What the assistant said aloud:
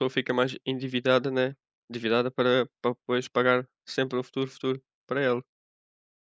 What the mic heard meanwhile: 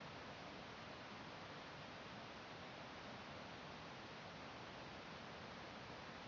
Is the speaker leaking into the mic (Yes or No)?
No